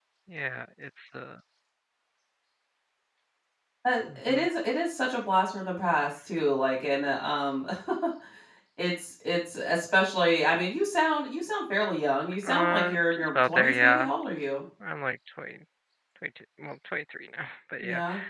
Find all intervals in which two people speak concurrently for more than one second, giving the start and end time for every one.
12.5-14.1

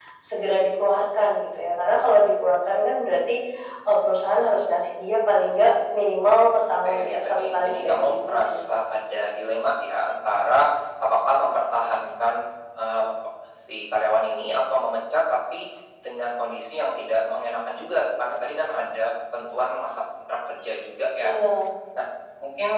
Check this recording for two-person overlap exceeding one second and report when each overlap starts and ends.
6.8-8.6

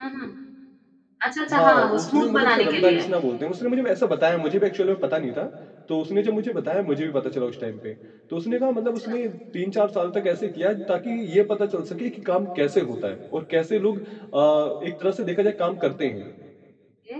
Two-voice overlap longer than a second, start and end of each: 1.5-3.0

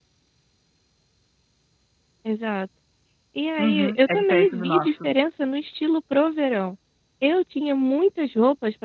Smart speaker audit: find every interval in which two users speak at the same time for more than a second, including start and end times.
3.6-5.1

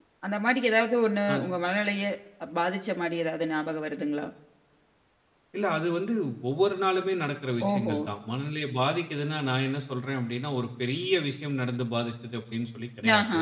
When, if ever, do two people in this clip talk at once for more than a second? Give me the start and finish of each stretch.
none

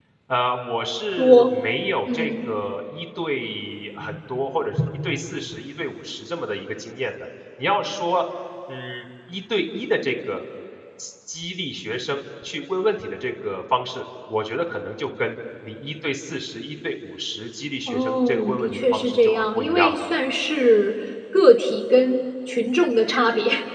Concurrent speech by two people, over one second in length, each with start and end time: 17.9-20.0

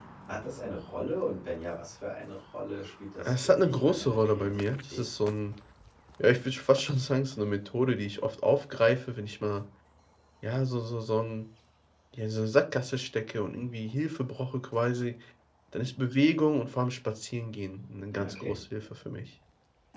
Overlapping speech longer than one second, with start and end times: 3.2-5.0

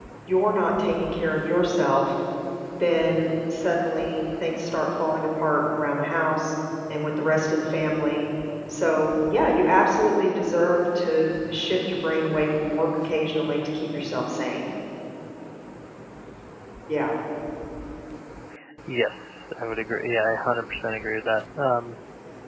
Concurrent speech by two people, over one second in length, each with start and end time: none

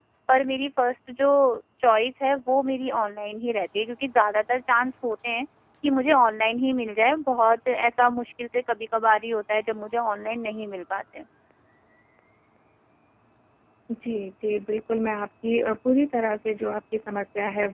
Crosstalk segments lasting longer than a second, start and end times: none

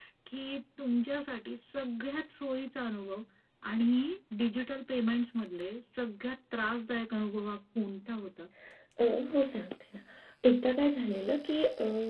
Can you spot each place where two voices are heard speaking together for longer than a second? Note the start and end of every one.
none

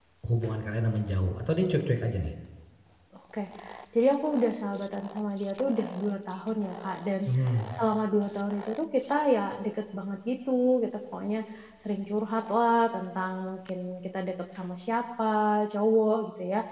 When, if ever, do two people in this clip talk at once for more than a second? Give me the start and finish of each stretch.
none

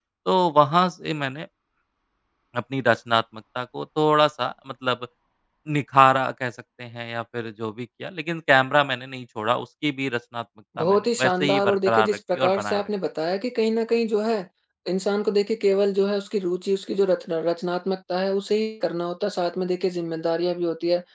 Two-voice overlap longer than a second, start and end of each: 10.8-12.9

